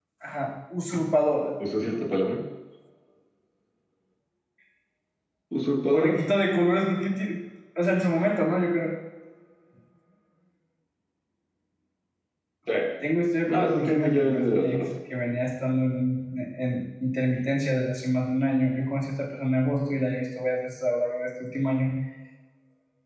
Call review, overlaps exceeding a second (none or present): present